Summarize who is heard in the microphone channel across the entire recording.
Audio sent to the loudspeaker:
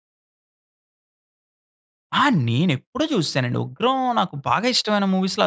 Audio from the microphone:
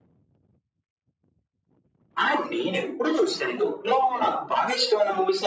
echo only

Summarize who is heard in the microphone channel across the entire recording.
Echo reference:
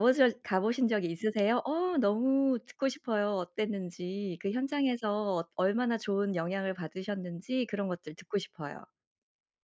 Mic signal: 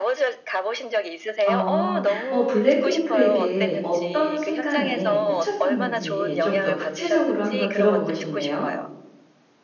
both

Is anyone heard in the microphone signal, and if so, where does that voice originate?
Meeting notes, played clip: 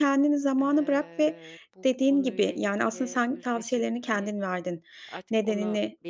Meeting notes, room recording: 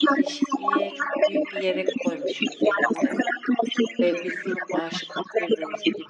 both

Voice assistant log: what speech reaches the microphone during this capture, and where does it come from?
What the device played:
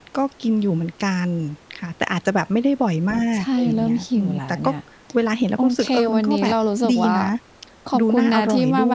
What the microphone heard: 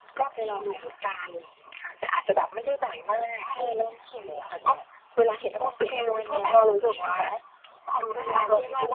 both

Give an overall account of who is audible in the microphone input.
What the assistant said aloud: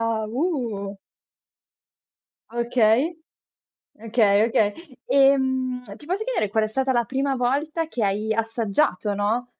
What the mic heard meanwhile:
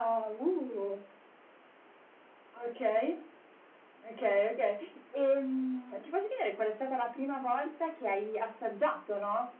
echo only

